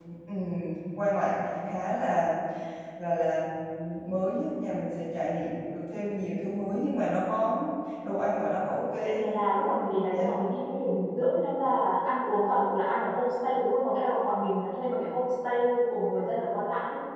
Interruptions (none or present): present